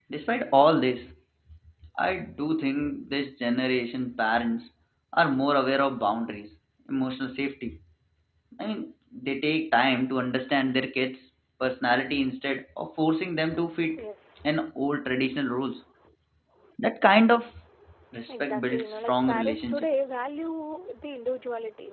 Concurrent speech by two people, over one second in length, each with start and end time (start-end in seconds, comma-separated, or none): 18.3-19.9